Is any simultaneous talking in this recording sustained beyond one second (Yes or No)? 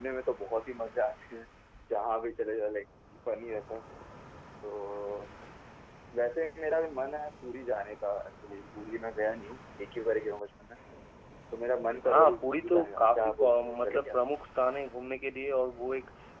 Yes